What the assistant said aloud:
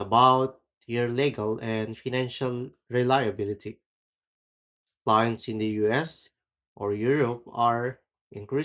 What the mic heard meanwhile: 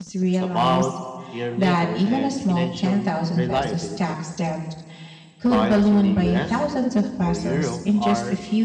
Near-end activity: present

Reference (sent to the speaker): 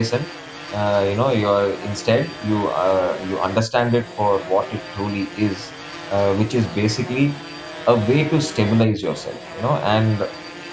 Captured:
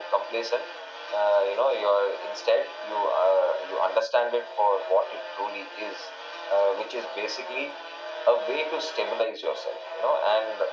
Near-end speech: none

